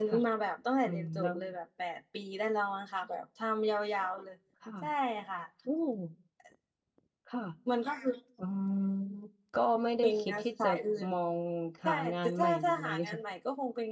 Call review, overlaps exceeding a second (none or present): present